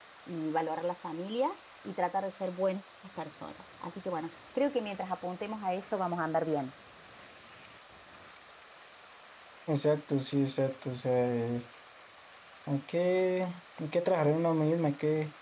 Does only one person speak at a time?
Yes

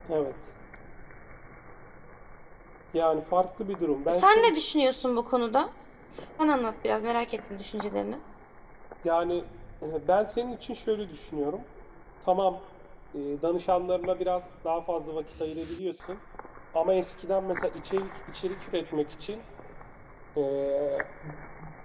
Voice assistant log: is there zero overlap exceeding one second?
Yes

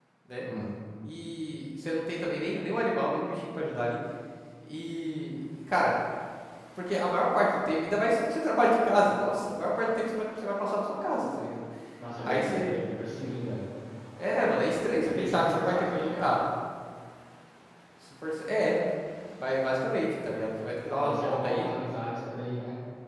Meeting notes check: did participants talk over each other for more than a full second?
Yes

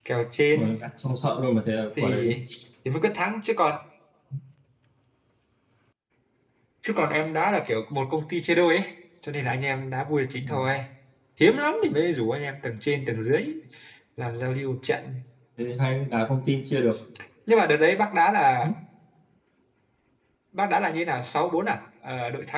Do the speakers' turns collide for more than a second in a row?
No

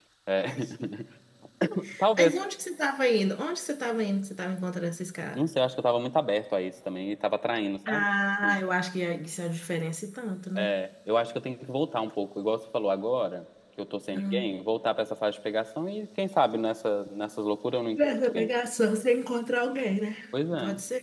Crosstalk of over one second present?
No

